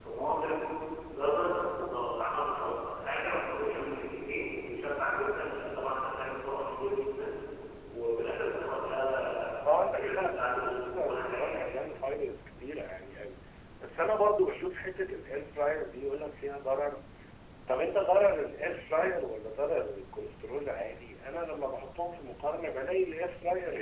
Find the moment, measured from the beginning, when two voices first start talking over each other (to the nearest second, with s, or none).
10 s